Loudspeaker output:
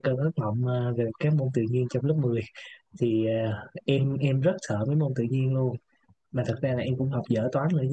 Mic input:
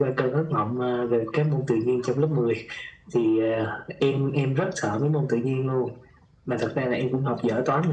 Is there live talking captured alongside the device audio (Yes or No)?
No